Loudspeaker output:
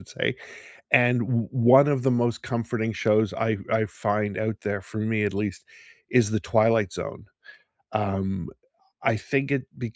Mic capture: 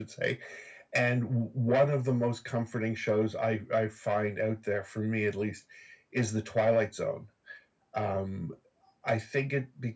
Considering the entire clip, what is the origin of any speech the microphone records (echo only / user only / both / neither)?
echo only